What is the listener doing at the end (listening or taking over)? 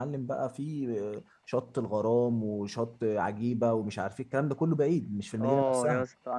taking over